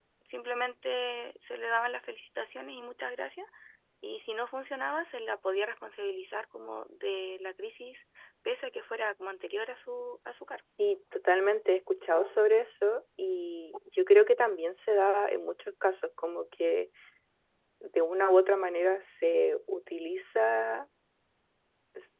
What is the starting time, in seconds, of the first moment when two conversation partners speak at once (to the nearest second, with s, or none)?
none